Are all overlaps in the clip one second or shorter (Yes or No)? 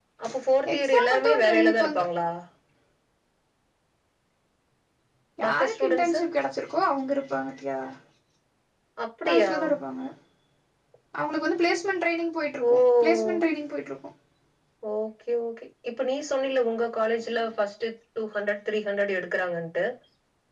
No